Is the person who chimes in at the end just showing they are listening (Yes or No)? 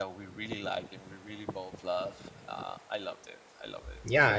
No